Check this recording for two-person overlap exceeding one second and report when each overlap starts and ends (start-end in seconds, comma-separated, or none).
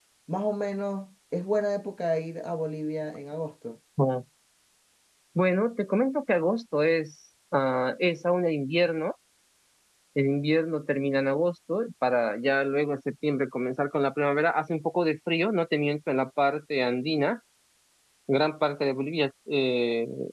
none